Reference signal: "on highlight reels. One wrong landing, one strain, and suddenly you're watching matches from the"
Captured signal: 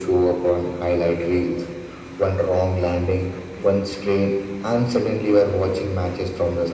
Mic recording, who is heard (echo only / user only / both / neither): echo only